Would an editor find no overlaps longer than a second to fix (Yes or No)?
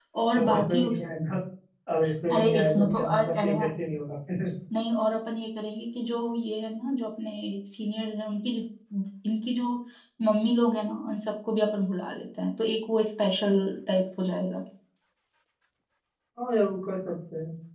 No